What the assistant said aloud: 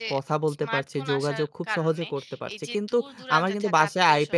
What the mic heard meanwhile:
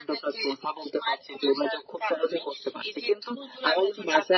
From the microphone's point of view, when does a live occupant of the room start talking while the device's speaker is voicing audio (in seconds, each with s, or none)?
none